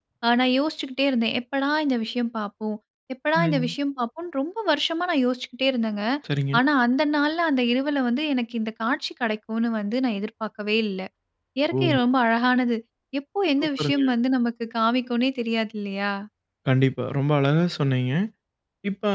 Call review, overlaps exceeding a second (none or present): none